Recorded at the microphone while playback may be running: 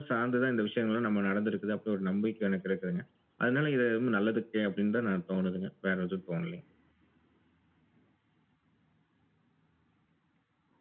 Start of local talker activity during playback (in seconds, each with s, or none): none